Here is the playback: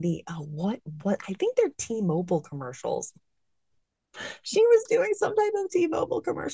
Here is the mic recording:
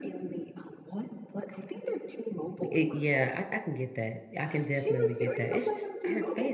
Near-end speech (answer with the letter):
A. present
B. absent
A